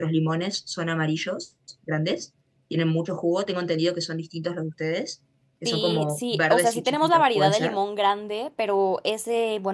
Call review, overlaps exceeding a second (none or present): present